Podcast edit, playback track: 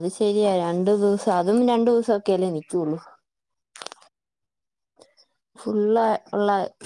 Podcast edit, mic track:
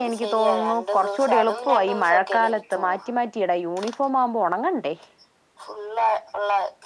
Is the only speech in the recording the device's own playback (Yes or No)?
No